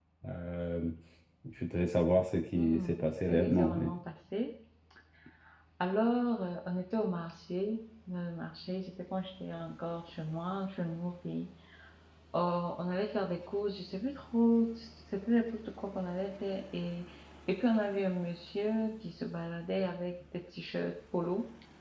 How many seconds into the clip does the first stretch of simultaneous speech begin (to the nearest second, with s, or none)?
3 s